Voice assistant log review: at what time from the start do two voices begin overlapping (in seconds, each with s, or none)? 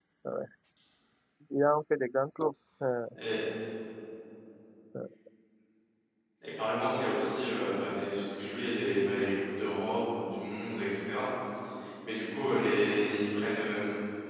none